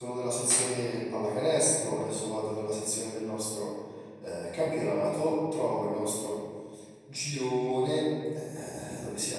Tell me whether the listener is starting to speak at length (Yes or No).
No